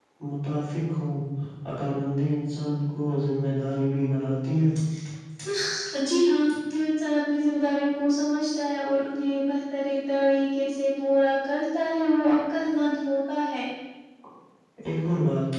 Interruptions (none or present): none